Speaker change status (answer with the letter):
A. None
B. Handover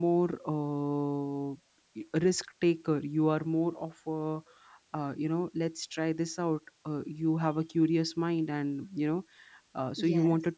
A